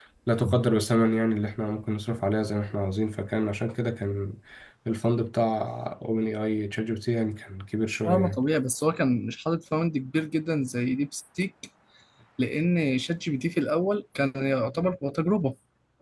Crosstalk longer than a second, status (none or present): none